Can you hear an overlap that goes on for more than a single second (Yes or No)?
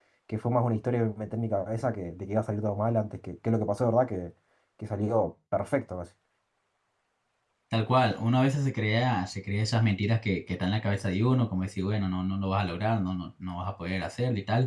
No